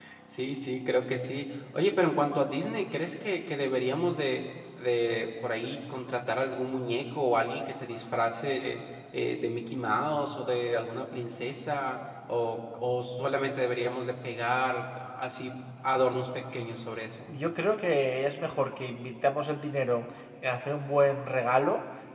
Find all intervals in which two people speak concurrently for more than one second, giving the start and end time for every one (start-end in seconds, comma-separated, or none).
none